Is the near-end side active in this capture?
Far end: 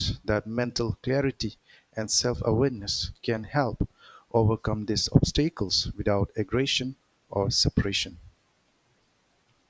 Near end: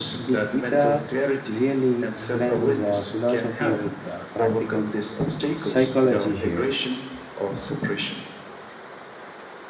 Yes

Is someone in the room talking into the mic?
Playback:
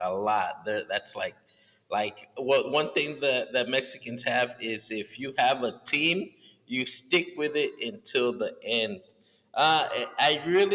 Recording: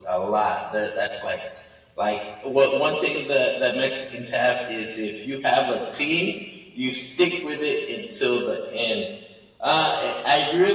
No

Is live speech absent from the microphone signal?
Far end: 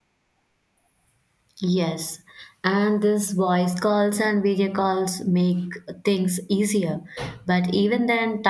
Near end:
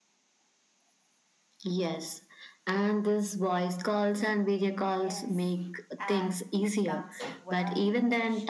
No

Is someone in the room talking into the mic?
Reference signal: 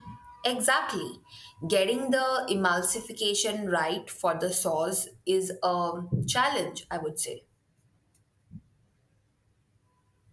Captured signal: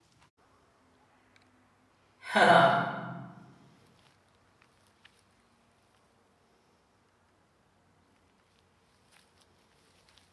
Yes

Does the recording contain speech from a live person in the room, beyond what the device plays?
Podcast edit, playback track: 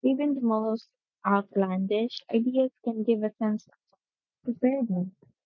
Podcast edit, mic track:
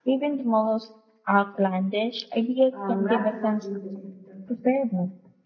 Yes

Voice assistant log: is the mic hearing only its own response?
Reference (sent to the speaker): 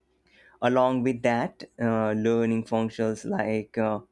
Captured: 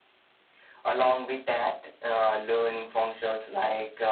Yes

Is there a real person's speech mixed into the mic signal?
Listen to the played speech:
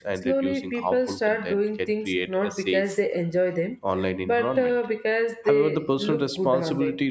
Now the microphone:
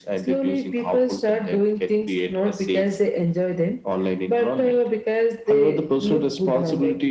No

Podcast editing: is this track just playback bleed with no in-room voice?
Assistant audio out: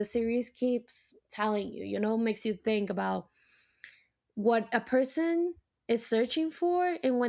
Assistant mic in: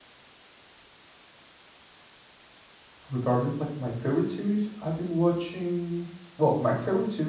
No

